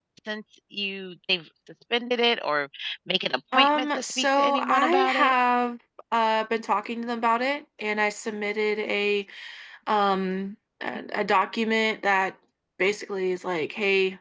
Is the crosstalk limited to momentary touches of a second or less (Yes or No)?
No